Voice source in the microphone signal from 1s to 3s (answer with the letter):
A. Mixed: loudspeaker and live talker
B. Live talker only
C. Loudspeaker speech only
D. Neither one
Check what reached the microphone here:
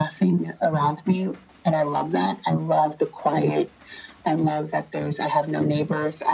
C